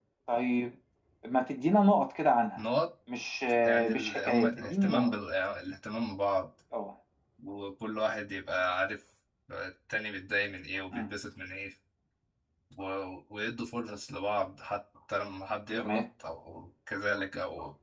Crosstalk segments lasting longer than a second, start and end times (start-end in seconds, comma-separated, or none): 3.6-5.1